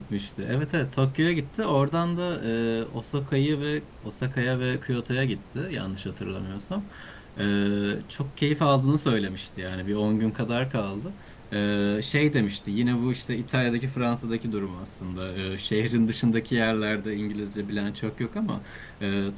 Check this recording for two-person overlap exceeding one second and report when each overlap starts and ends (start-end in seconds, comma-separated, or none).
none